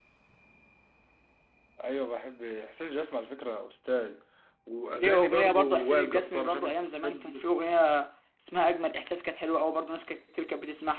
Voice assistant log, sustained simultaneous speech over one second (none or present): present